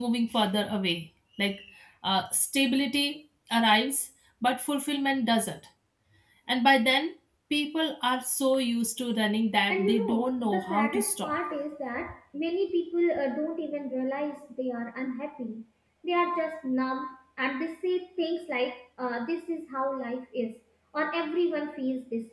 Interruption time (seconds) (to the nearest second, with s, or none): 10 s